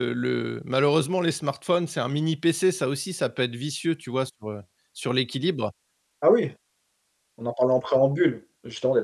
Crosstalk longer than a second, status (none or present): none